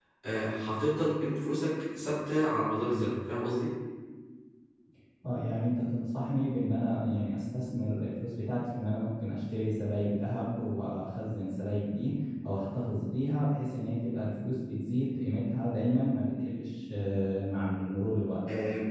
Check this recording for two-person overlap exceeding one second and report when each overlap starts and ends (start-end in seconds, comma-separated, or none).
none